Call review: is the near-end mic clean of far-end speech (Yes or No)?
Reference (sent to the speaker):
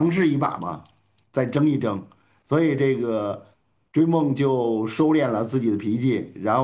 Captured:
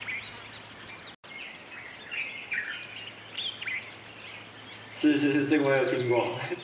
Yes